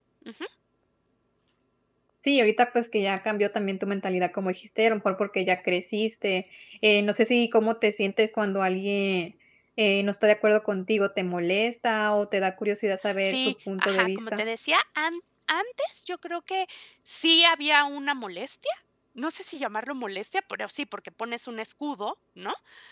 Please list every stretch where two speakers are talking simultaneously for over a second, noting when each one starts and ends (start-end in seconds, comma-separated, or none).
13.2-14.4